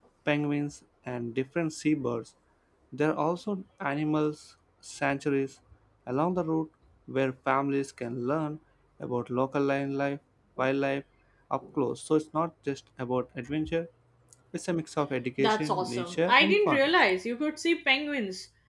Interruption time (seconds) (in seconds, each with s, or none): 15.4 s